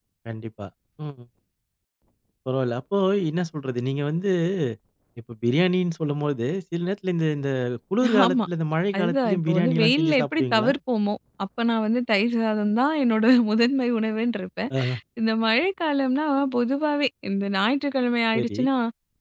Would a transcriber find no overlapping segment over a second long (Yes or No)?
No